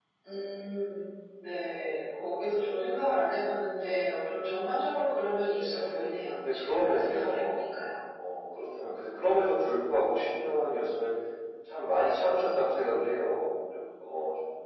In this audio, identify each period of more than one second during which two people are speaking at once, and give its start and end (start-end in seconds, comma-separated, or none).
5.7-7.6